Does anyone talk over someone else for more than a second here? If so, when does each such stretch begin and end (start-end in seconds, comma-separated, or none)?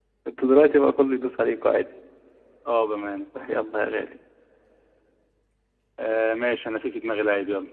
none